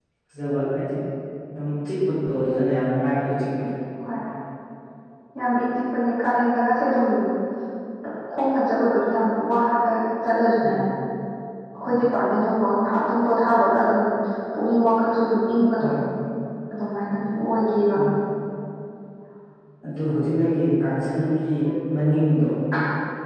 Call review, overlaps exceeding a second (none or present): none